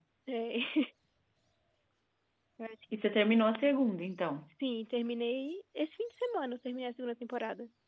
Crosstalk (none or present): none